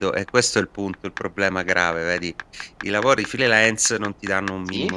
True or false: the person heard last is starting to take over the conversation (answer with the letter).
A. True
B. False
B